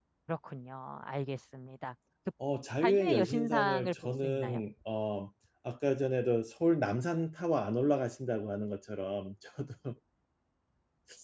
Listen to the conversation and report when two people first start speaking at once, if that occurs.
2.8 s

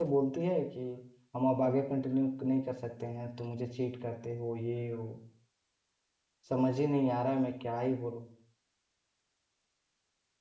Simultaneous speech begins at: none

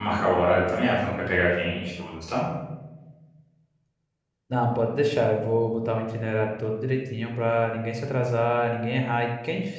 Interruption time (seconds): none

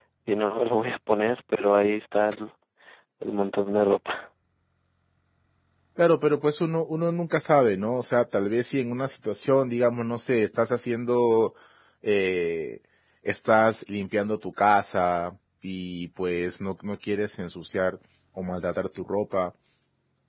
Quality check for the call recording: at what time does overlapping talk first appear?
none

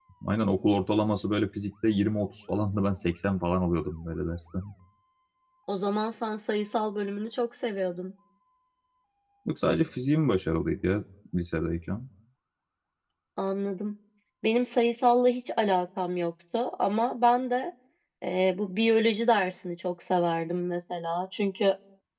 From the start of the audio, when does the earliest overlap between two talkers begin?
none

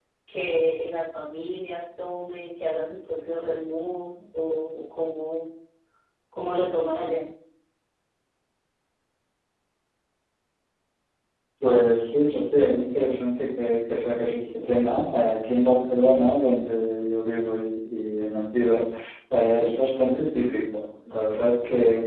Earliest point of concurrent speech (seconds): none

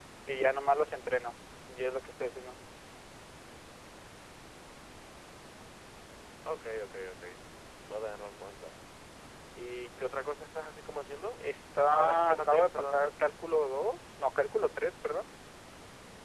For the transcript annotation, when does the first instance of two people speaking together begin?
11.9 s

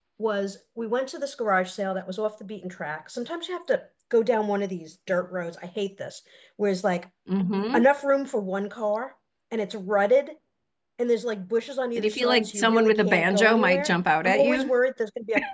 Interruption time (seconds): 12.0 s

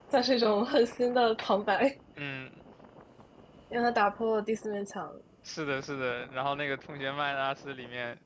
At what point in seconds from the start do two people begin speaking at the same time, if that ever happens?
none

